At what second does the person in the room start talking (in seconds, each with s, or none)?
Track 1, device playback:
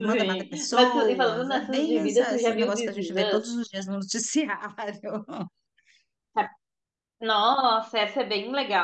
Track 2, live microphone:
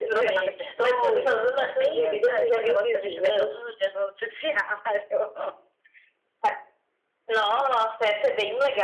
none